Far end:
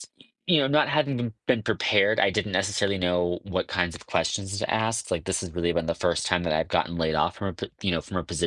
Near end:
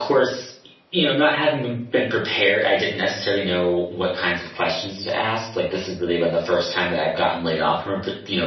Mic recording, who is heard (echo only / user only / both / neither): echo only